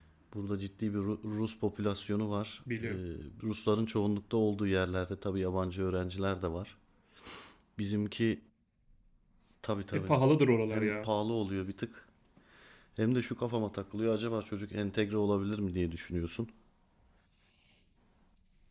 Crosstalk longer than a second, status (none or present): none